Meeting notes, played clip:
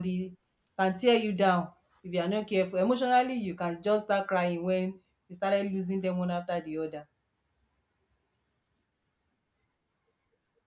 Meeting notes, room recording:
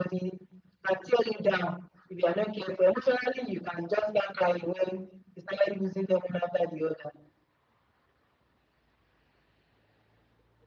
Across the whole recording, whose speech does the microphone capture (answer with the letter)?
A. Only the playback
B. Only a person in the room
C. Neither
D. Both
A